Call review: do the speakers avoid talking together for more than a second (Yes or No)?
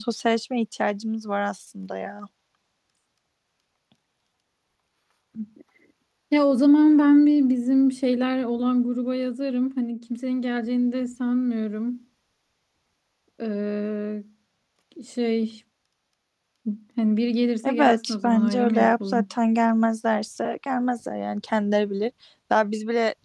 No